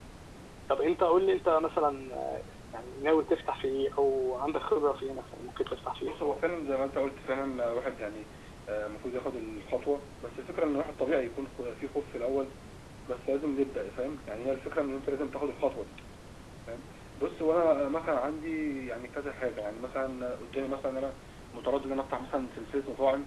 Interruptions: none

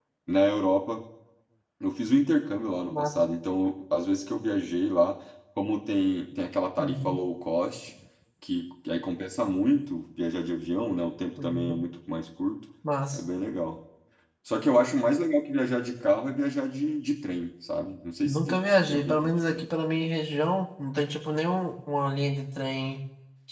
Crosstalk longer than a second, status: present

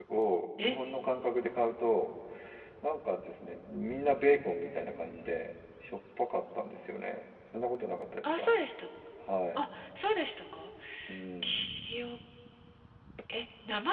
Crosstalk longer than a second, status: none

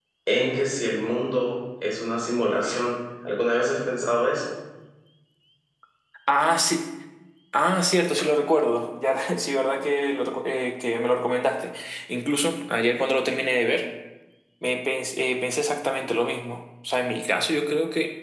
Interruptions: none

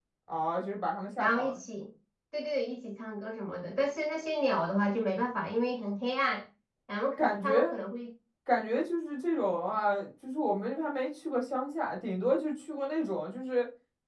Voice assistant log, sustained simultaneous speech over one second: none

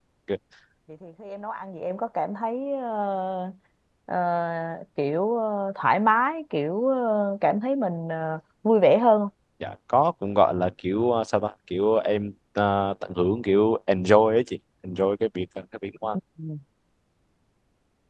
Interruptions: none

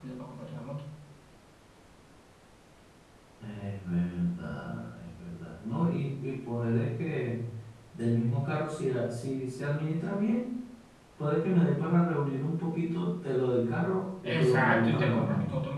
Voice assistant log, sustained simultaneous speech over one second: present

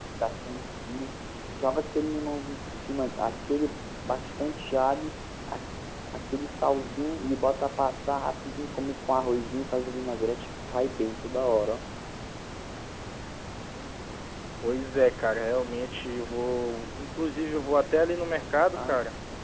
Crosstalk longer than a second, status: none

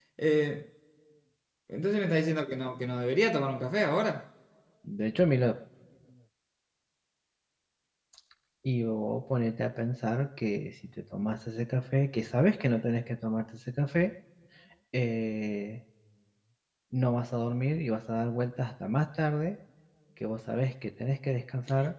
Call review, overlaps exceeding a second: none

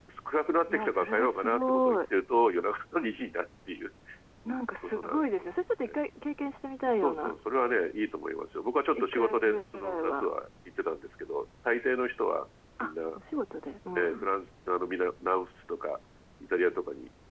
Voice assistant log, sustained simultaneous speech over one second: present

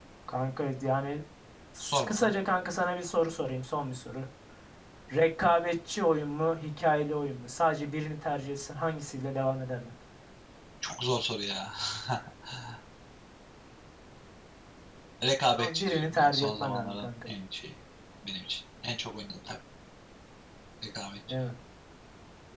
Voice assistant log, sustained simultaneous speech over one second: present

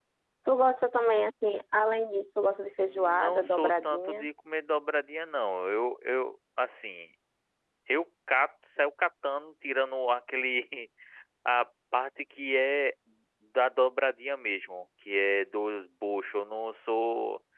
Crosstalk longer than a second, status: present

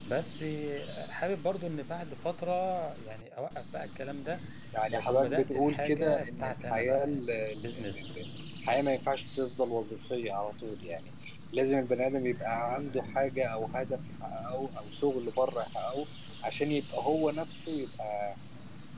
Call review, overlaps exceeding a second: present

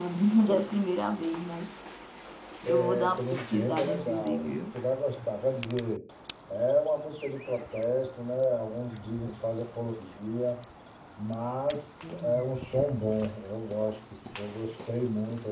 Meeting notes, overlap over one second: present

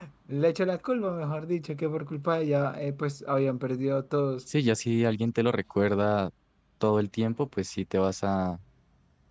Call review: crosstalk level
none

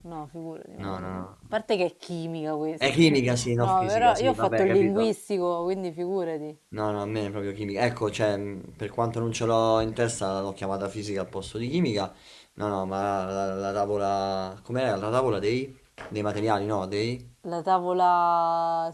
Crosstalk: present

